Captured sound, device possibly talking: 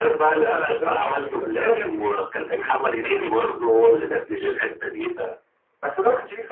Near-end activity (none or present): none